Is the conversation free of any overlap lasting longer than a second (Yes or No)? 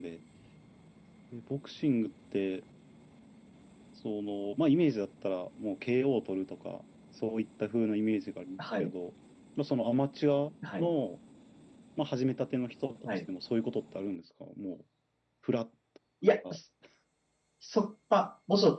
Yes